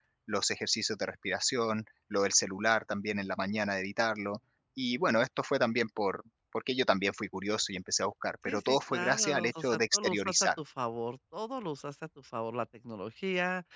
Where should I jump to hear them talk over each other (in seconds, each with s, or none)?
8.5 s